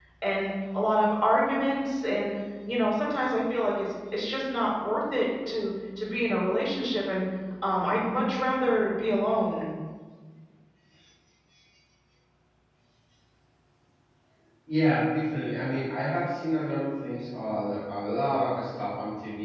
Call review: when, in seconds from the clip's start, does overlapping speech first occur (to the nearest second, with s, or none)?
none